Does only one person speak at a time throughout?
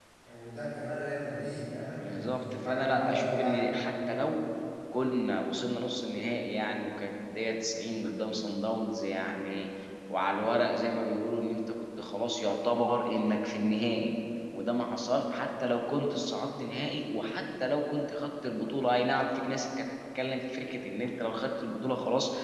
No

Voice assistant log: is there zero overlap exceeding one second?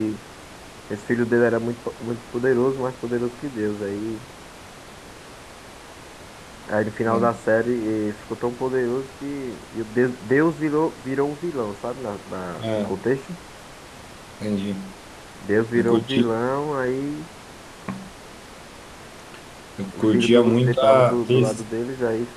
No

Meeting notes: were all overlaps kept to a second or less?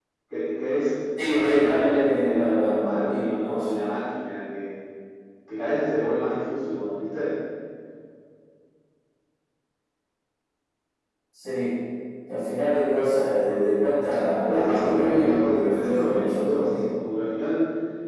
No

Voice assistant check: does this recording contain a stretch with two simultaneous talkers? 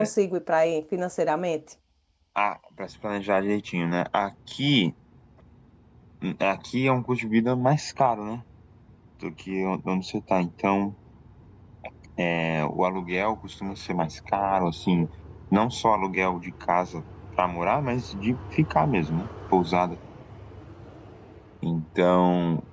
No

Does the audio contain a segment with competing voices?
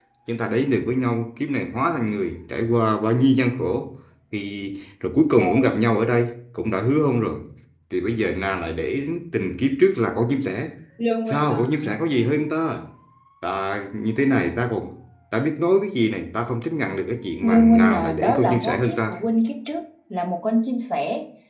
Yes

